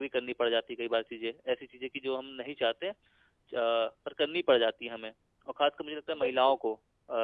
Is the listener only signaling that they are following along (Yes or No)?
Yes